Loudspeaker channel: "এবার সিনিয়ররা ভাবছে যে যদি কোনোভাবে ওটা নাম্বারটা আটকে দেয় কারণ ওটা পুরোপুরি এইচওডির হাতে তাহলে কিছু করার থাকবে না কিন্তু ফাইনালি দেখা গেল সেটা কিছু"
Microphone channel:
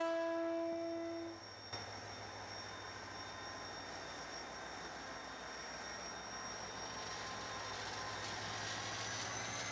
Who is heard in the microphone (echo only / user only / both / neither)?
neither